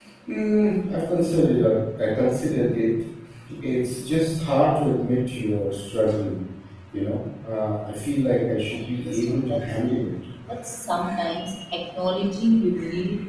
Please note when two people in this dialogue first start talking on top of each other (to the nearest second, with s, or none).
9 s